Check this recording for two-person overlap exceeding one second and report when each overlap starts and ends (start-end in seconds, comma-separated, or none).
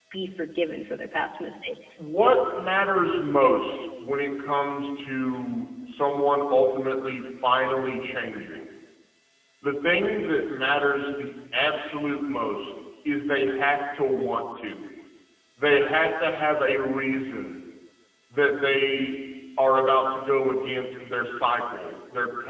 none